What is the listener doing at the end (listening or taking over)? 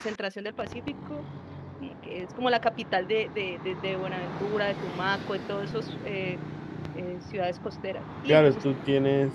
taking over